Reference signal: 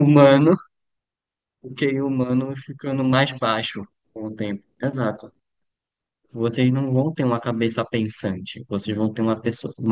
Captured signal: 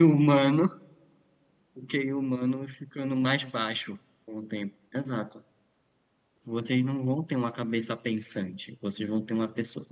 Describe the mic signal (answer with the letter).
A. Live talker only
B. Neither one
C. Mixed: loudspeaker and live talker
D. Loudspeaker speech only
D